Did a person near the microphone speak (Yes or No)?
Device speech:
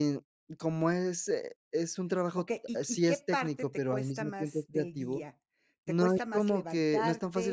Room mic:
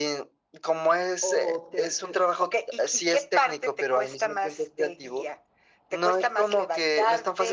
Yes